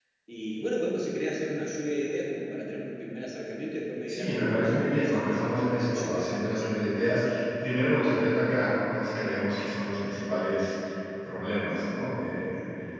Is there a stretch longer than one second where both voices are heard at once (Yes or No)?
Yes